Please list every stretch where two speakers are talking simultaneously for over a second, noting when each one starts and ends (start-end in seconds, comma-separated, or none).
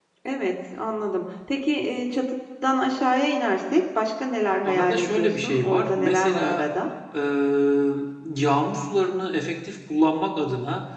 4.6-6.7